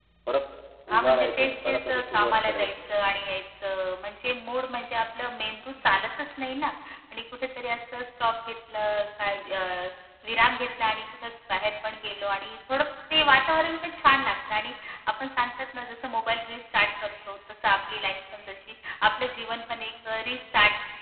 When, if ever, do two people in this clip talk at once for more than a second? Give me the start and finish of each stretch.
0.9-2.7

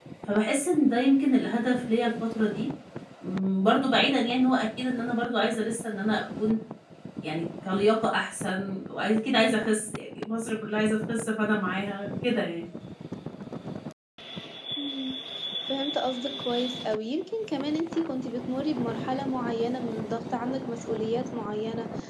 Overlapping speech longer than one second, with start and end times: none

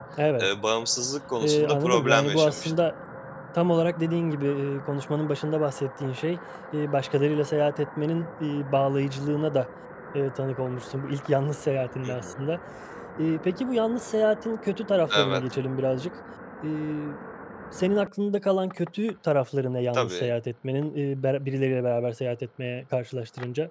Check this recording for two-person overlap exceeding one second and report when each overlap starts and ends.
1.4-2.7

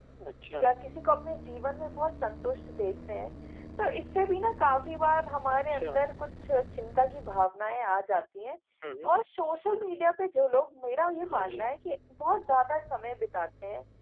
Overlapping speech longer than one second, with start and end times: none

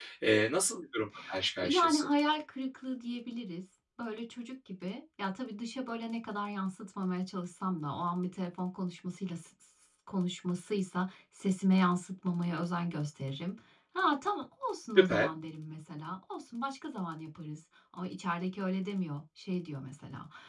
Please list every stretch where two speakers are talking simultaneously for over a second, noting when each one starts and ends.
none

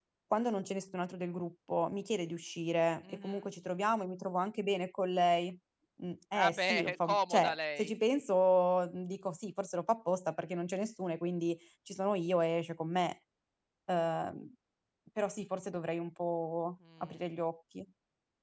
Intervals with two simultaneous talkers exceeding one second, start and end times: 6.3-7.9

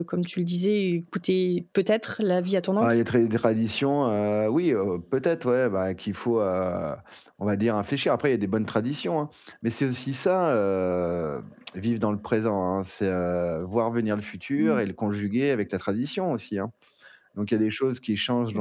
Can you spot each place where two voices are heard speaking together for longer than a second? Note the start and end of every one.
none

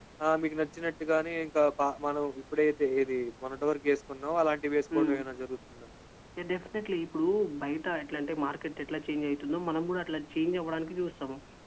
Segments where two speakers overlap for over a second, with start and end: none

